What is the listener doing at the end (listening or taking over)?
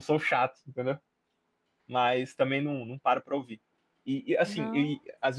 listening